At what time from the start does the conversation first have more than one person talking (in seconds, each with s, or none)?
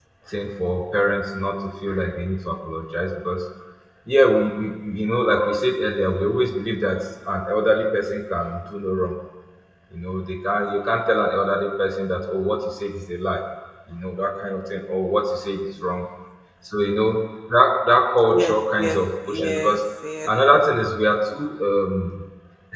18.3 s